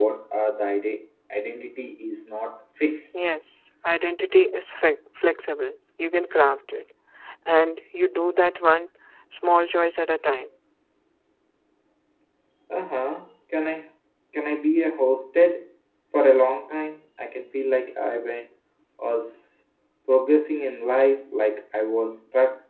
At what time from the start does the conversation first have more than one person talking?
none

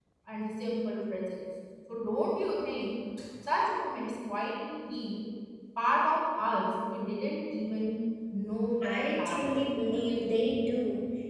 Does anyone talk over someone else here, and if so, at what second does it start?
9 s

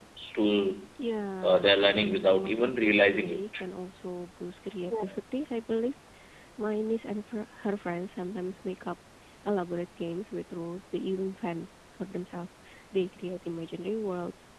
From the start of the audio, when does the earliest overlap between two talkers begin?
1 s

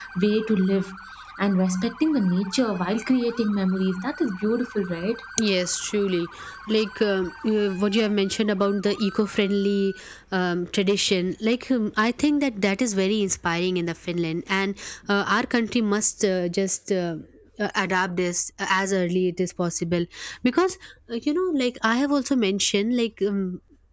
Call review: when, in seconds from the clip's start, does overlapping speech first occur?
none

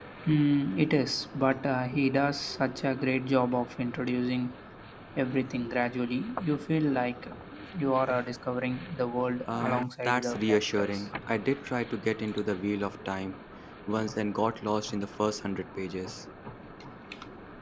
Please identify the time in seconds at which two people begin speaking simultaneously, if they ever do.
9 s

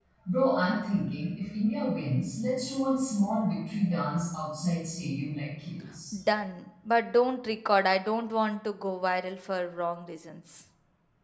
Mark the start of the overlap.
none

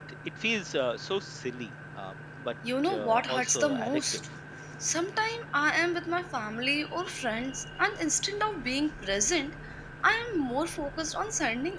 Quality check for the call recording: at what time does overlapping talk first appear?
3 s

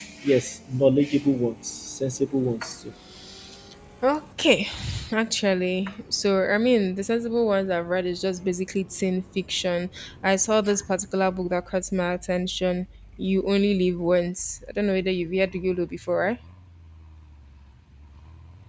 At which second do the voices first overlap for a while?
none

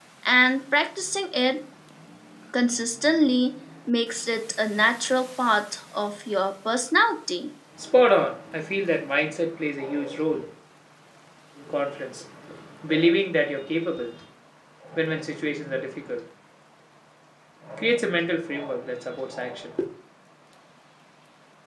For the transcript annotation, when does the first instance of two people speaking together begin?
none

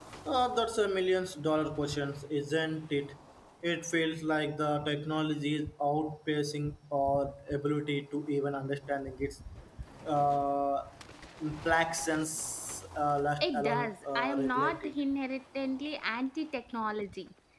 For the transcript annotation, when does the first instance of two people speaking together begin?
13 s

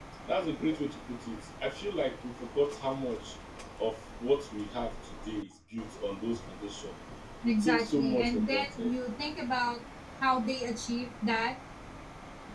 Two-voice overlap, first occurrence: 7 s

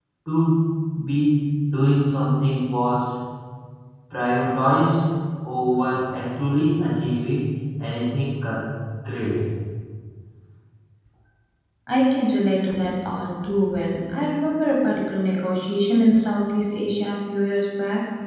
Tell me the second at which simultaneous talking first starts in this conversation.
none

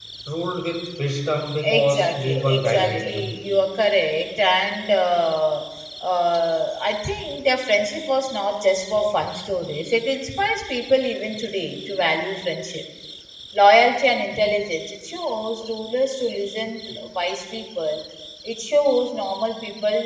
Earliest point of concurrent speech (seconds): 2 s

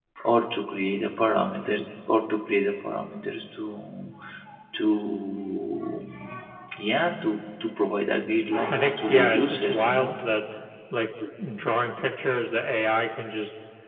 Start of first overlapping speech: 9 s

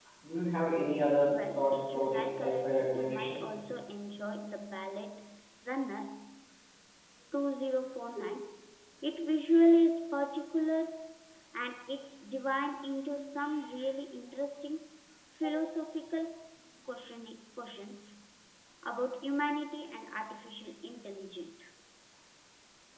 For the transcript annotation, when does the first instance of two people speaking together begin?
1 s

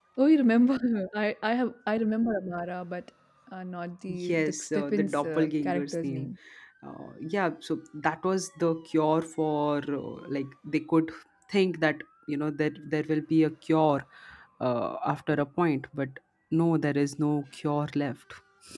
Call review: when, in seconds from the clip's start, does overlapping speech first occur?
4 s

